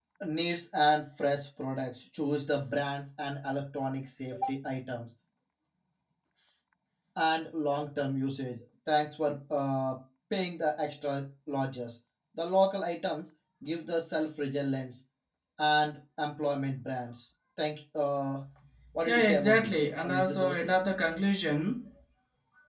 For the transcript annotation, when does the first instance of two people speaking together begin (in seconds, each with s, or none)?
19.1 s